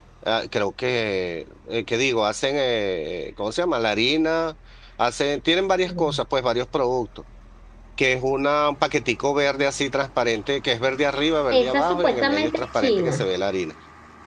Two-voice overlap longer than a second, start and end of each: 11.5-13.2

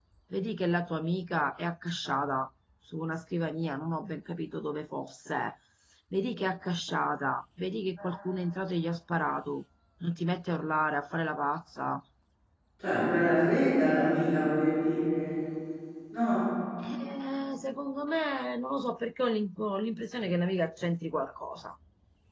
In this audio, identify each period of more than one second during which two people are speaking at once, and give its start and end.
none

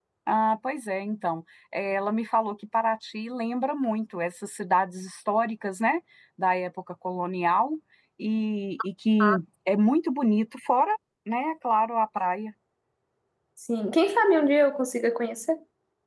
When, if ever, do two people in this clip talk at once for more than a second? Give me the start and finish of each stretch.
none

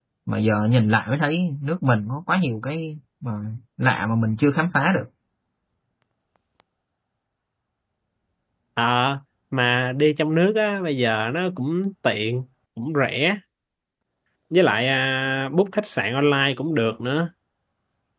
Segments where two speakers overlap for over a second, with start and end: none

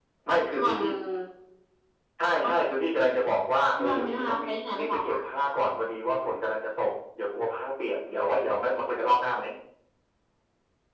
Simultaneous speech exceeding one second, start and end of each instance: 3.7-5.2

